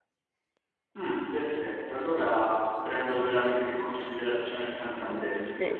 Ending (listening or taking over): taking over